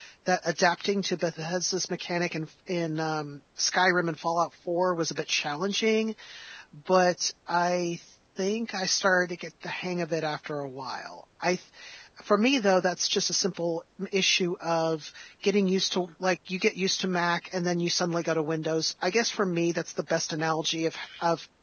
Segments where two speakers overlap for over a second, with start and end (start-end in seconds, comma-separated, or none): none